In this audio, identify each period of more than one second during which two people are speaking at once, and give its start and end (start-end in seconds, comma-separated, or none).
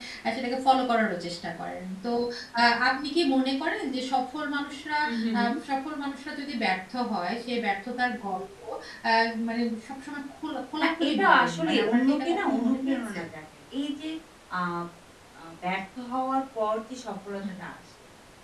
10.8-13.2